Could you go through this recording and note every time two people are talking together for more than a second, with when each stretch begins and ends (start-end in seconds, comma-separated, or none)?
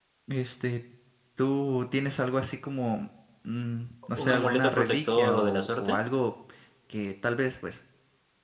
4.2-6.0